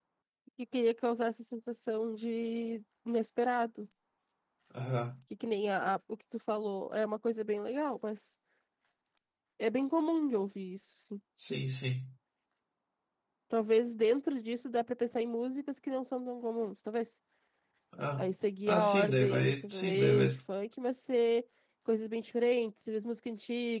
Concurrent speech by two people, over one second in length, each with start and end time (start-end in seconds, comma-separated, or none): 18.7-20.3